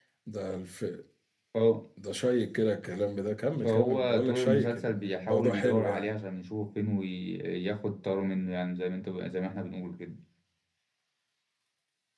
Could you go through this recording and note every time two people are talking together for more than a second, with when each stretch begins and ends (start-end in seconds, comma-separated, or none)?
3.6-6.1